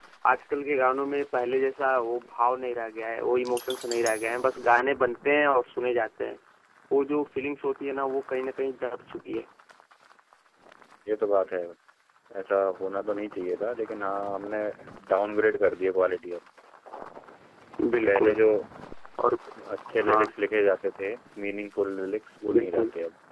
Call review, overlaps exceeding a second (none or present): none